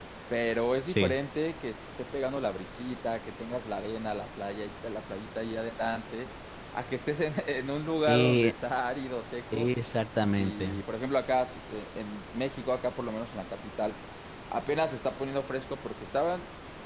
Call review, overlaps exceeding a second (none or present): none